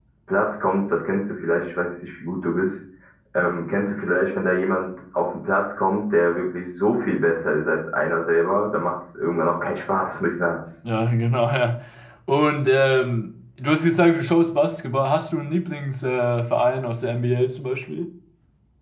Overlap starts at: none

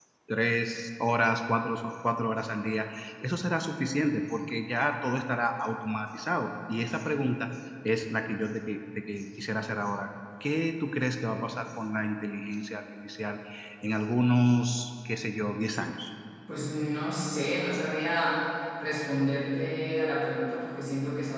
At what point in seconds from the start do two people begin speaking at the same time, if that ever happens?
none

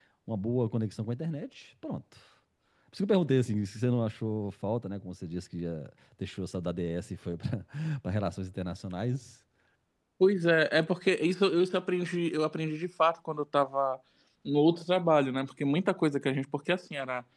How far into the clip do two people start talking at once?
none

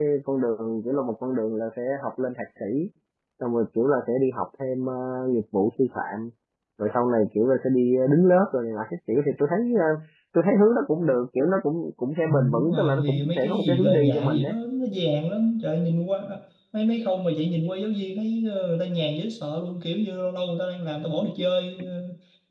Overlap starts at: 12.3 s

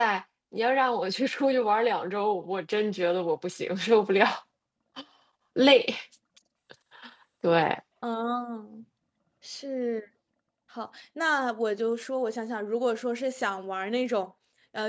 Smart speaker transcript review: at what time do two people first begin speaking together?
none

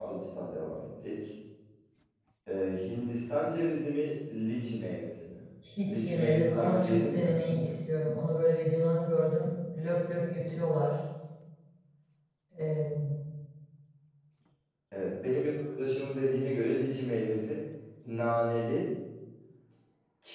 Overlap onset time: 5.9 s

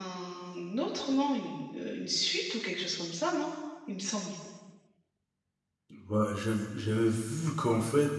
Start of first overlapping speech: none

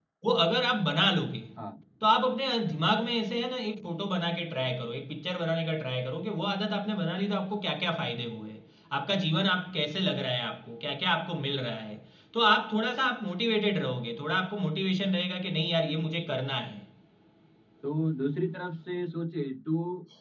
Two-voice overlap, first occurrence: none

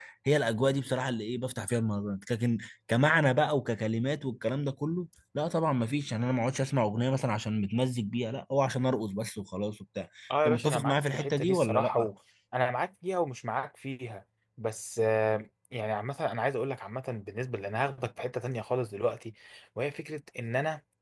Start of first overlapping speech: 10.4 s

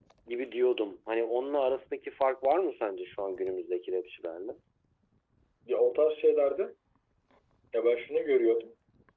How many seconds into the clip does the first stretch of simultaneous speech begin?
none

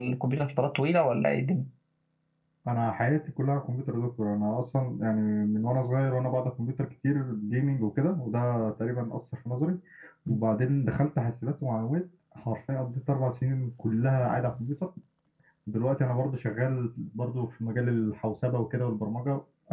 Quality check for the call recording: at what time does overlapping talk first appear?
none

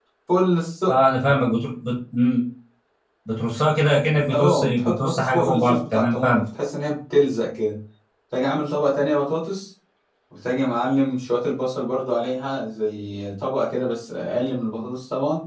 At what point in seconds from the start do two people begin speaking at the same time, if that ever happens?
4.3 s

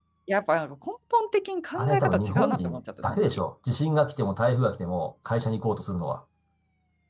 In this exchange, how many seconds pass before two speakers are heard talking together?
1.8 s

